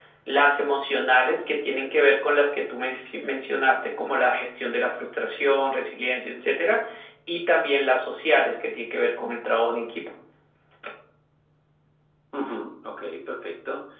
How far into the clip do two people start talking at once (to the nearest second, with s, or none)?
none